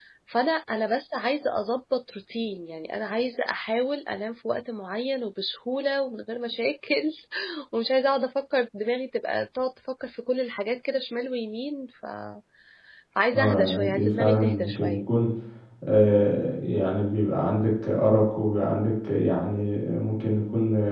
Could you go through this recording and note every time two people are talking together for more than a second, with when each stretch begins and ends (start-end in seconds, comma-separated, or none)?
13.5-15.1